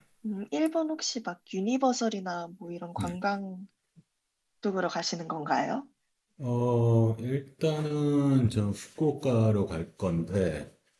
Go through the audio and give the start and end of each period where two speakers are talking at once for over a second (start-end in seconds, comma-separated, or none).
none